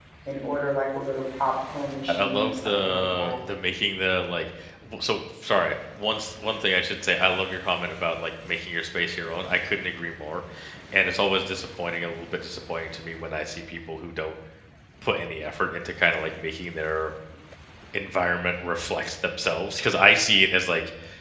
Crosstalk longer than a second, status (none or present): present